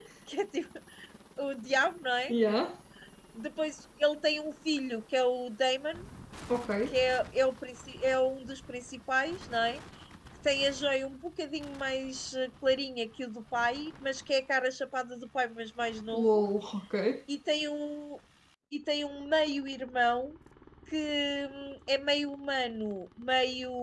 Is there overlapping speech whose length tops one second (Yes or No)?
No